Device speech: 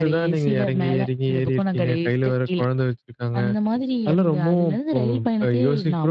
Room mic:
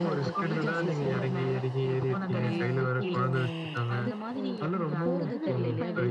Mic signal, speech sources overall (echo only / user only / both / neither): both